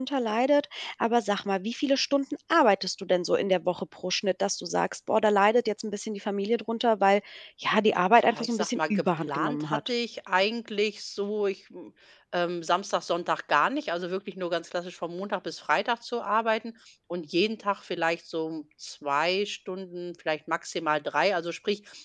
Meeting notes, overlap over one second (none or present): present